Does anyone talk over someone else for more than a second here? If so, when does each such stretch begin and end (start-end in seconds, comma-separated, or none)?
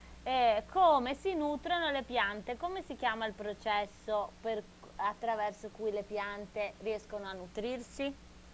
none